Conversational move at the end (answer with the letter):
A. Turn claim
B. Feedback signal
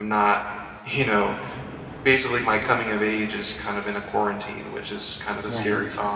A